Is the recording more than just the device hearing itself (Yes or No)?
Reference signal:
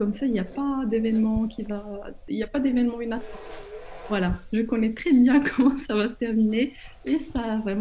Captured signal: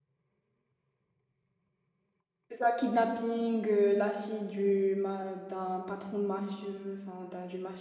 Yes